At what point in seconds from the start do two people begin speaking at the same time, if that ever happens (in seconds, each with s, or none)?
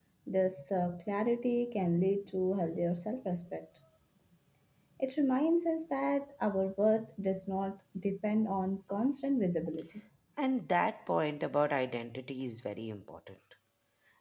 none